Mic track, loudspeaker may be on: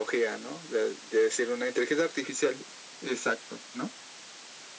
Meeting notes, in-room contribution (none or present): none